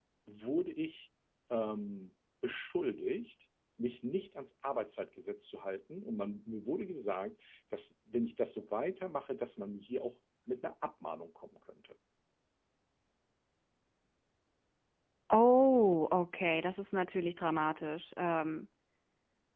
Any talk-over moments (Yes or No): No